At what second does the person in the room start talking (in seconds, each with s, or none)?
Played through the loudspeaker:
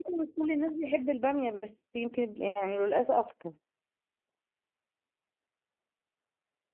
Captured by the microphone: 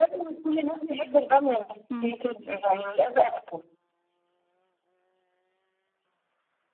1.9 s